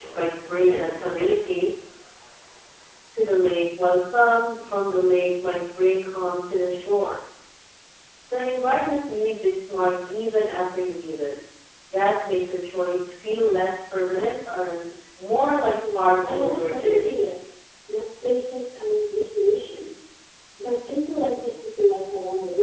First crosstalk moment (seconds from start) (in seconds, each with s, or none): 15.7 s